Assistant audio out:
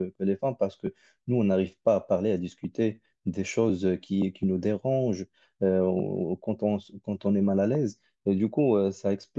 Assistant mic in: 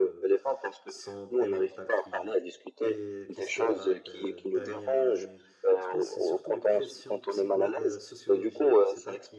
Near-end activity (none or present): present